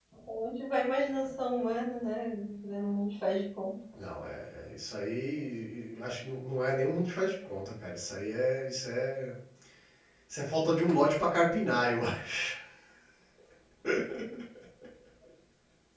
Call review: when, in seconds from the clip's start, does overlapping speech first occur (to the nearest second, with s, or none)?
none